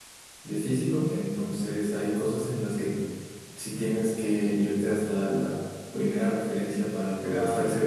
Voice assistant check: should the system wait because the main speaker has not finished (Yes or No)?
Yes